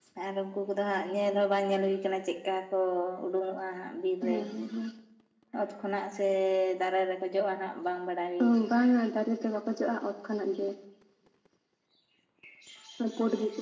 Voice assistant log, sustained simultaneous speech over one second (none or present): none